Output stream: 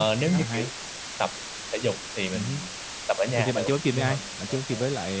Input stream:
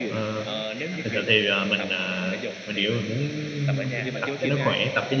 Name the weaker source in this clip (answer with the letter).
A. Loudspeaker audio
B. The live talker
A